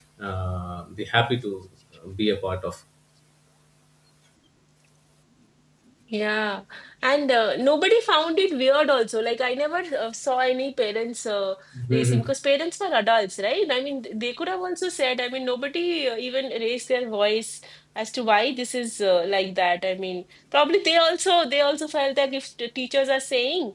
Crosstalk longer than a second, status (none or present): none